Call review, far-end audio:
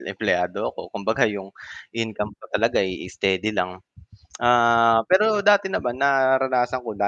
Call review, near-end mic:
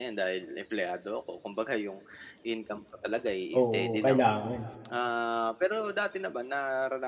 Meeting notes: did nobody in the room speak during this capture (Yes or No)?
No